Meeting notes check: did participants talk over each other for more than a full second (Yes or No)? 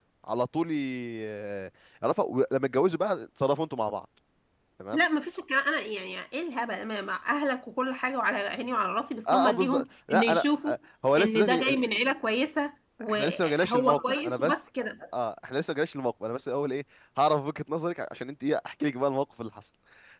Yes